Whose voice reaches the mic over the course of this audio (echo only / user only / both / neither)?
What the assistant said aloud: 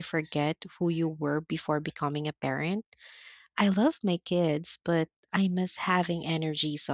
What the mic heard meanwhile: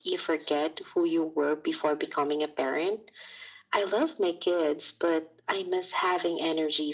echo only